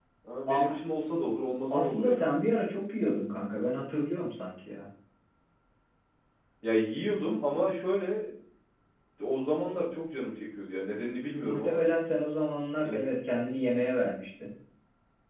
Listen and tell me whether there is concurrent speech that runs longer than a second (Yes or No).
No